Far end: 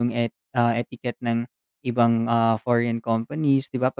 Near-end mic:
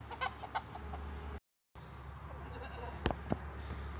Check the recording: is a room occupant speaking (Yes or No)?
No